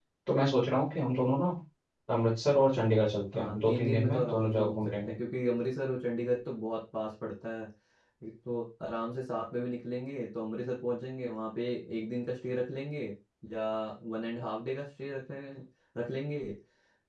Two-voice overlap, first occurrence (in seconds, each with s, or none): 3.3 s